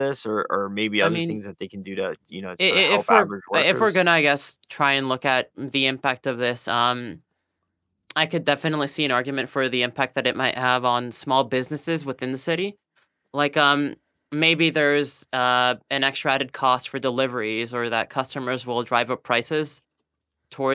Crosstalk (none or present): present